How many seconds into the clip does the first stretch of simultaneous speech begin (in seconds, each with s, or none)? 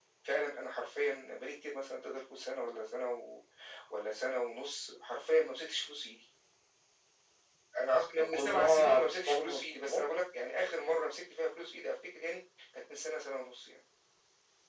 8.3 s